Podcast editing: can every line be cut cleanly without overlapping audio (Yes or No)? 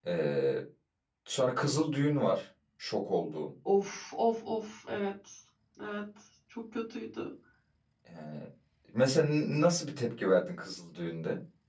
Yes